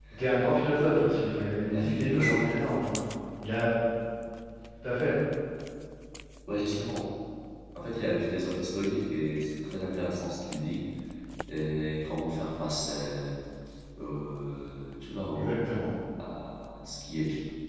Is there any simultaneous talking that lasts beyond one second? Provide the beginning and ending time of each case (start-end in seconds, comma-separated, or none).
0.7-2.5